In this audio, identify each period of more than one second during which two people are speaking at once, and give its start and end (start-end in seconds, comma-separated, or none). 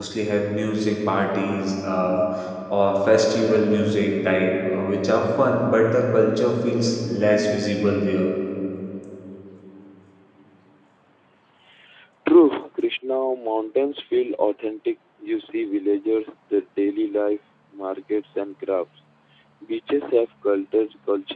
none